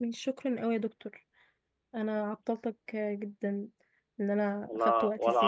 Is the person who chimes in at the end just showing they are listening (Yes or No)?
No